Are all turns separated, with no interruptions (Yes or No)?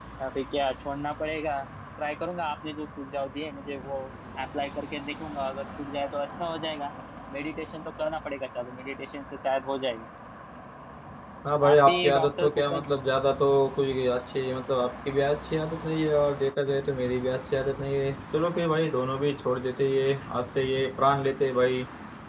No